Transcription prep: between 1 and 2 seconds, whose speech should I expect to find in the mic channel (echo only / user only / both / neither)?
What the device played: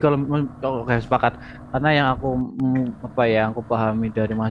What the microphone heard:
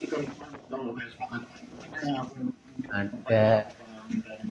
echo only